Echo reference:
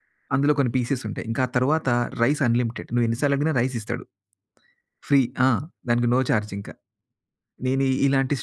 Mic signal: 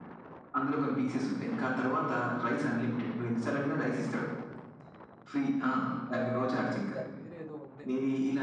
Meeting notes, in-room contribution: present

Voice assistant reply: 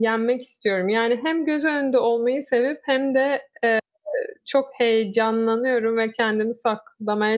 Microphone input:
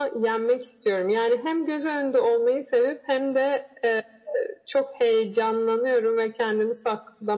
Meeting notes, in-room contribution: none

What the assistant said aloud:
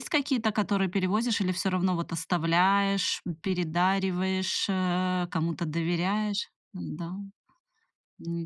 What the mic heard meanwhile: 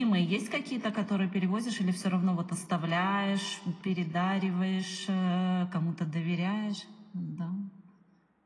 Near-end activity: none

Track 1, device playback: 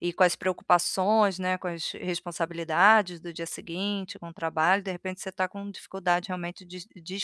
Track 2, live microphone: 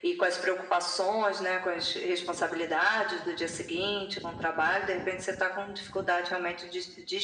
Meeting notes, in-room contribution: none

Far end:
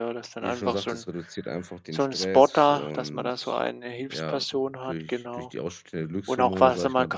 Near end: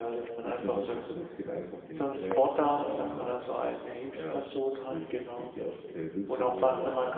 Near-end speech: none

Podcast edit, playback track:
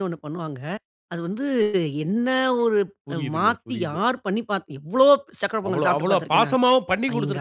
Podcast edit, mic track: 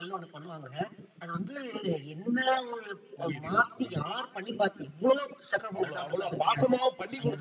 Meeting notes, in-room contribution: none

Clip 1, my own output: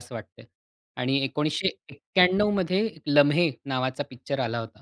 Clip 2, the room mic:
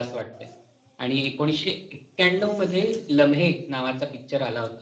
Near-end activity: none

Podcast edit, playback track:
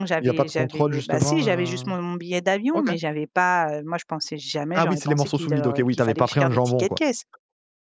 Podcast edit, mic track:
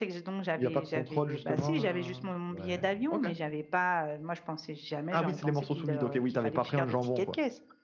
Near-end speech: present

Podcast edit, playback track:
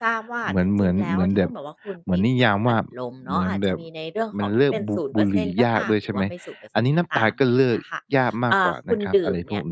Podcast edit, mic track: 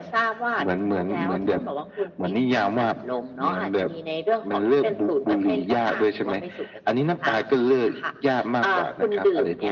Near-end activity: none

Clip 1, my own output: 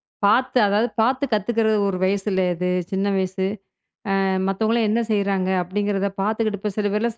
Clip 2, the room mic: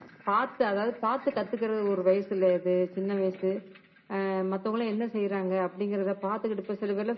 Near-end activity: none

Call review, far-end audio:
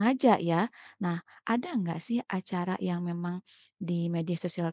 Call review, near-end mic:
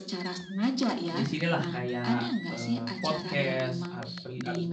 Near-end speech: present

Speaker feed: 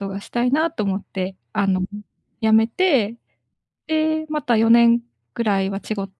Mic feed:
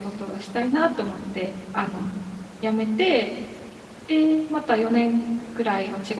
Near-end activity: none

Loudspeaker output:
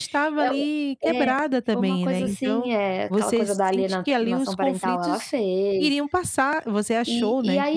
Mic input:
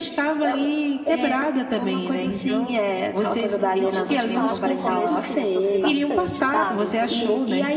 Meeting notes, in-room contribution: present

